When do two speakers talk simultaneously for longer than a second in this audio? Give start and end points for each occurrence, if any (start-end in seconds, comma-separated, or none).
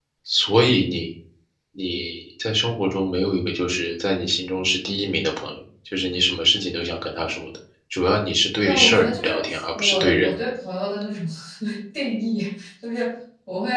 8.6-10.4